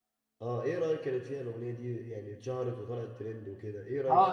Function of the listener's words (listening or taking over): taking over